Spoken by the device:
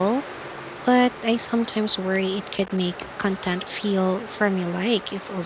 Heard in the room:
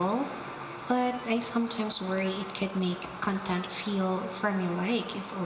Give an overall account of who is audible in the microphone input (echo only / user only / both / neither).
echo only